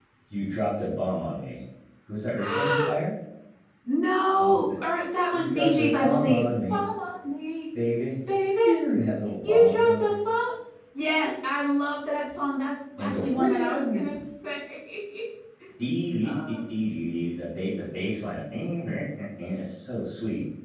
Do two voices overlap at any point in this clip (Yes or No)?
Yes